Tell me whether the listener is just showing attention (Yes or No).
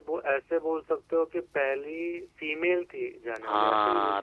No